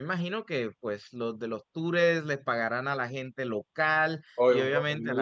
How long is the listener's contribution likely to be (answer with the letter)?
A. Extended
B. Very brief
A